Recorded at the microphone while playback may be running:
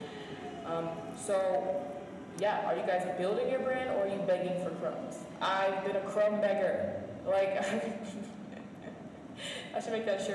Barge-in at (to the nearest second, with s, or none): none